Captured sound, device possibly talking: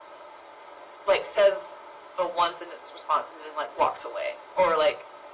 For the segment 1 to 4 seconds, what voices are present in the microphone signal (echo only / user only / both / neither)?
echo only